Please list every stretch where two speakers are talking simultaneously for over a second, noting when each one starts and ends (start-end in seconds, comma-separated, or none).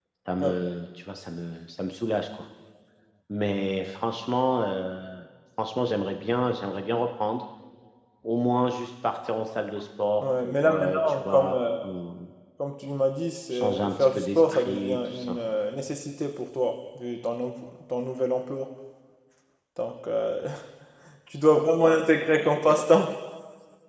10.2-11.6, 13.5-15.4